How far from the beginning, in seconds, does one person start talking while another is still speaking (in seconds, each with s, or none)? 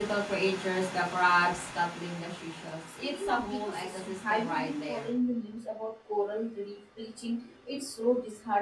3.0 s